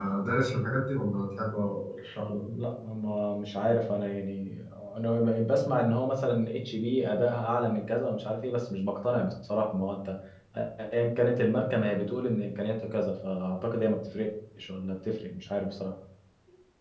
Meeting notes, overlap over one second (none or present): none